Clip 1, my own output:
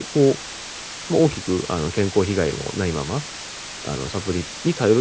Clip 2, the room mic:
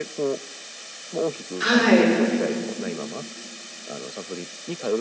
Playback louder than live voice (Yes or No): No